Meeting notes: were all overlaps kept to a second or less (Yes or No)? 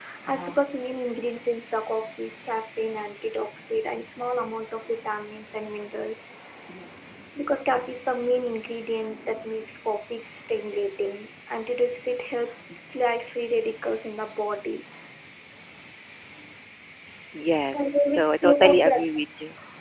No